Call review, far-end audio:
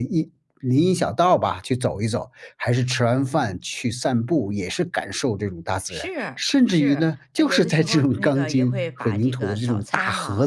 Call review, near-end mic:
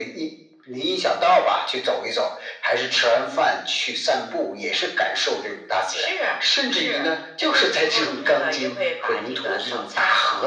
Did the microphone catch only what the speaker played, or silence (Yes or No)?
Yes